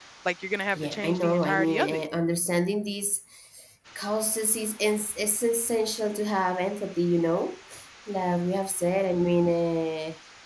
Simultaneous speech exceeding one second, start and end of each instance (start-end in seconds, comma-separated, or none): 0.7-2.0